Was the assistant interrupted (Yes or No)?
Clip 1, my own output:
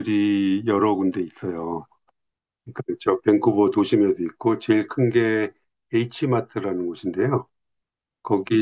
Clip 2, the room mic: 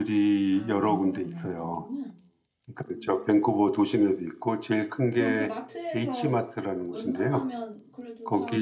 Yes